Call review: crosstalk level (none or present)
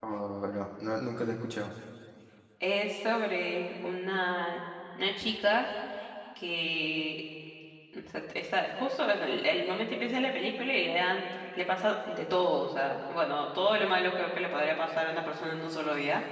none